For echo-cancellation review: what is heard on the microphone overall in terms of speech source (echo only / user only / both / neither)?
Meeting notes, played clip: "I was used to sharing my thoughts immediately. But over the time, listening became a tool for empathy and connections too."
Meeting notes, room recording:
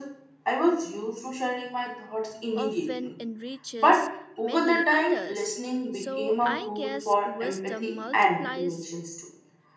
both